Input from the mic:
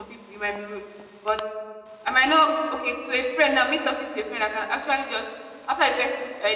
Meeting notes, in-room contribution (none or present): present